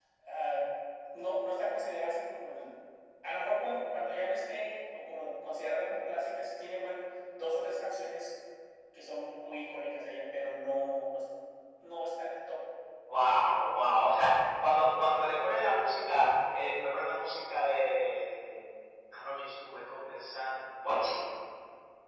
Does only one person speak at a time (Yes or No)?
Yes